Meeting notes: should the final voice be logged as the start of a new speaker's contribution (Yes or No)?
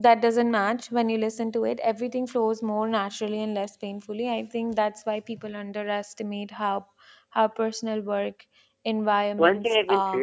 Yes